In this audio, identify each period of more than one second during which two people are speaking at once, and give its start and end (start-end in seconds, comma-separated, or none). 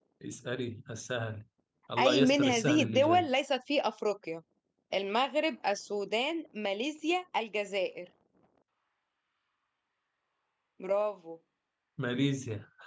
2.0-3.3